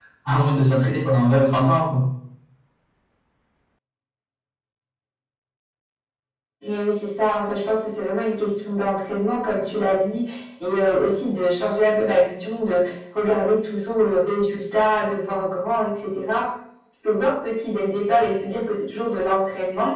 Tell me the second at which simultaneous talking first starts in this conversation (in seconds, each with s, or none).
none